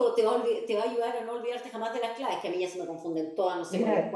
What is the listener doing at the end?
taking over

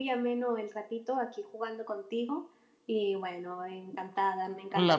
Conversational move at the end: listening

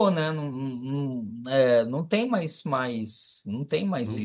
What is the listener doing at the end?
taking over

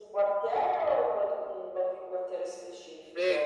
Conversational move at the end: taking over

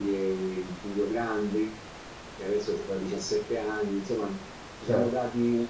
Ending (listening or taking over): listening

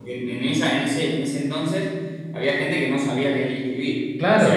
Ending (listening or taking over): listening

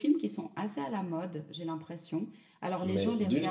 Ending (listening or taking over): taking over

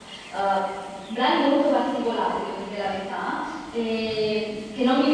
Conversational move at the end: listening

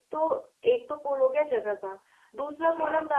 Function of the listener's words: listening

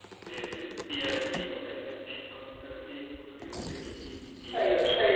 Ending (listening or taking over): listening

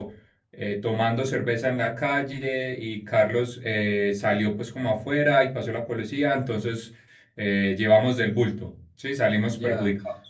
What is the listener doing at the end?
taking over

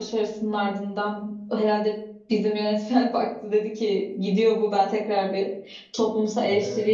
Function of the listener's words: listening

